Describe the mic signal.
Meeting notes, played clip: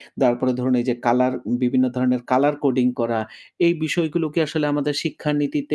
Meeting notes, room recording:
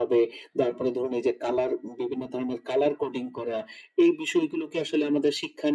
echo only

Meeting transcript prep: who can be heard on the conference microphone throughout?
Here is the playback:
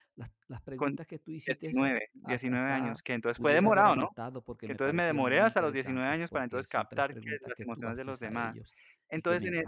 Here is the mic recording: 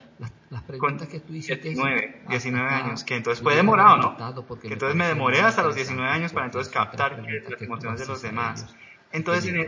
echo only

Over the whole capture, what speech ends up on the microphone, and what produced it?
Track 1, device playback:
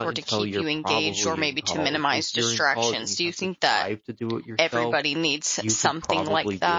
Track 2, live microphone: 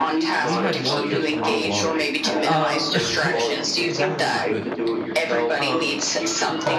both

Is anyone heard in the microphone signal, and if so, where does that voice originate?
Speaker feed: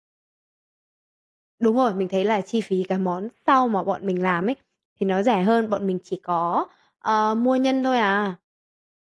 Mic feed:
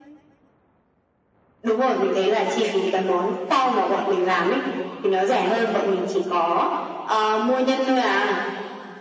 echo only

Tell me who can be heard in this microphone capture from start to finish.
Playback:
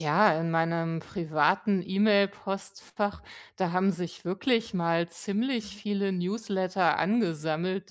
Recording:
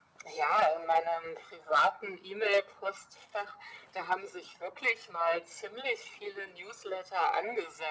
echo only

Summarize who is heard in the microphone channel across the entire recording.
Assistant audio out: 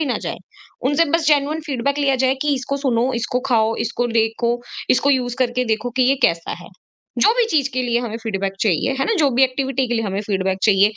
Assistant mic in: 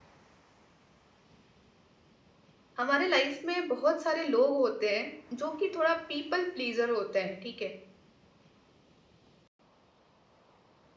user only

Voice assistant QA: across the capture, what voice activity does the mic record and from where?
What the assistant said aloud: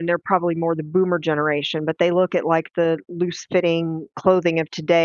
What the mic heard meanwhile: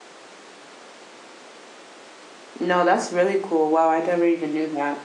user only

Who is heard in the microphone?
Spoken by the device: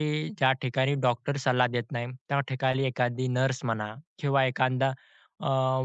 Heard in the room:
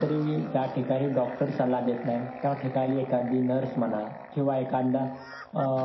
echo only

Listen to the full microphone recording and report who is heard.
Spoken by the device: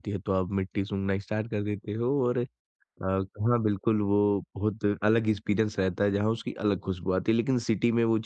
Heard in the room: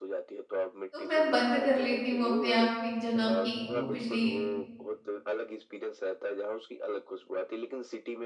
both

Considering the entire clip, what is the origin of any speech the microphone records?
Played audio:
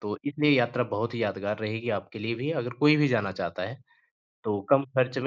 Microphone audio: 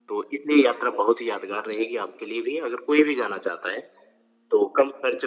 echo only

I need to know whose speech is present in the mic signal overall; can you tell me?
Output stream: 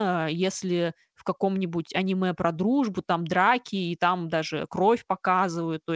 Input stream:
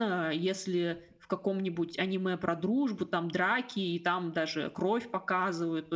echo only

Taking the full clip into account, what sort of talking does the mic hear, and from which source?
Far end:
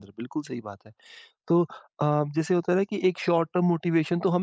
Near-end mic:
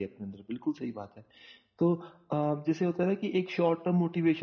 echo only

